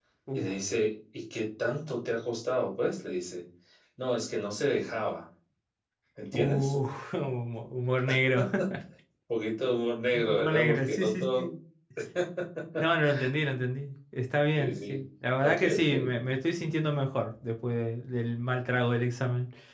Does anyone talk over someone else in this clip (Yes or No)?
Yes